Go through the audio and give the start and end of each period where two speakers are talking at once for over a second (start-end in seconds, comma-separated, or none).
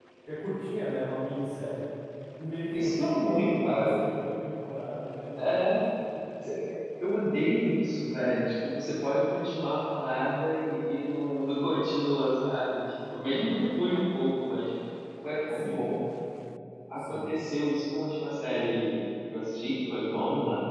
2.7-3.9